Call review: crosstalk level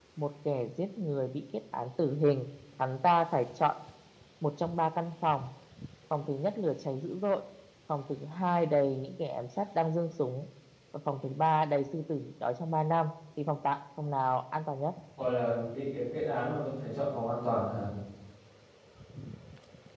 none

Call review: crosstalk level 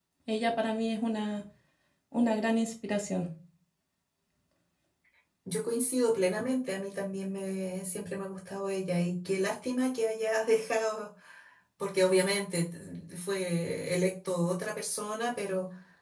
none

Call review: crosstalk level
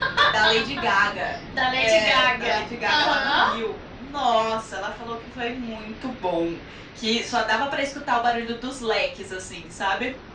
present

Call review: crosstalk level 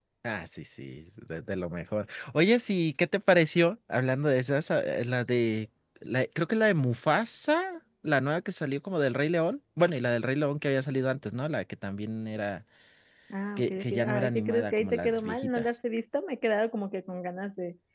present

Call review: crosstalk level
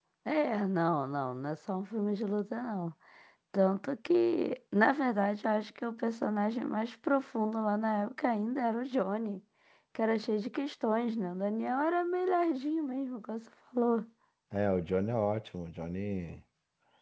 none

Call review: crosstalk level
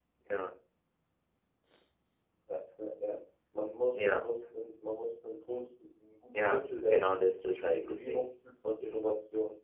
present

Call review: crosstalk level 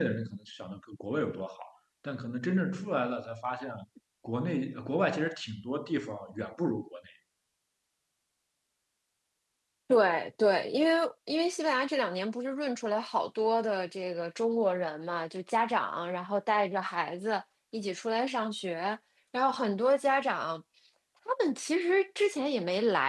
none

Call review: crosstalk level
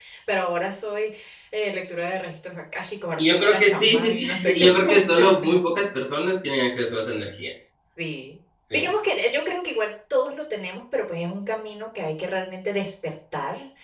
present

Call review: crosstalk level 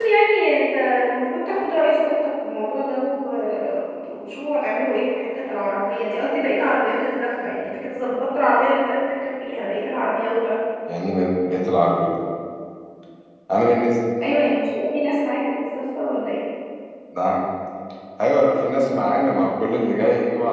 none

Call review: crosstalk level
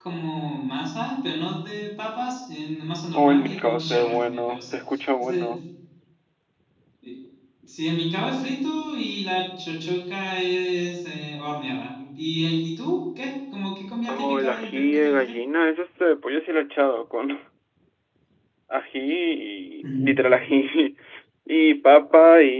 present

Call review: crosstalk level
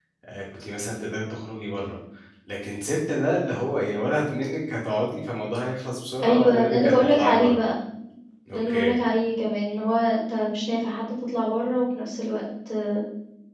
present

